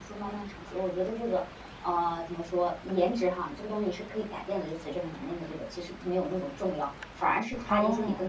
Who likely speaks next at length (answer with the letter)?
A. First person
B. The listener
A